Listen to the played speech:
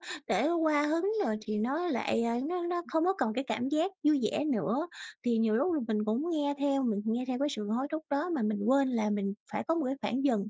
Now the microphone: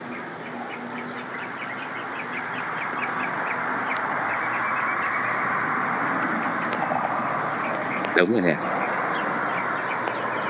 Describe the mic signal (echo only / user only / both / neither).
user only